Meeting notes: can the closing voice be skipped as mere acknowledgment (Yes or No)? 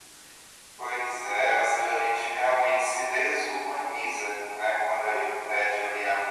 Yes